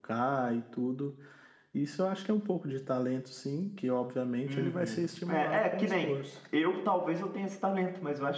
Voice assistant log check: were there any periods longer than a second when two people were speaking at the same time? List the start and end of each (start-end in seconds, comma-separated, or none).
4.5-6.1